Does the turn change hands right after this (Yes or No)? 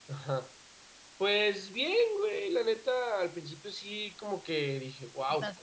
No